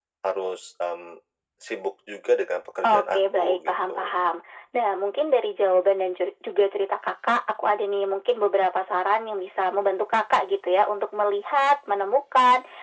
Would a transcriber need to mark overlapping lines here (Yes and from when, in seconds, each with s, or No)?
Yes, from 2.8 s